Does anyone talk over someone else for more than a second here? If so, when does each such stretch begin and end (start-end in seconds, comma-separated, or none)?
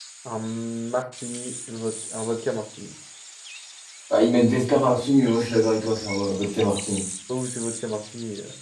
none